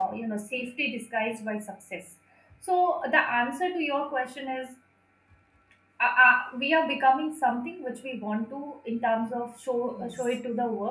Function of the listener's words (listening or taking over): listening